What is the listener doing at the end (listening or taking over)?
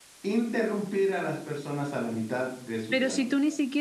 taking over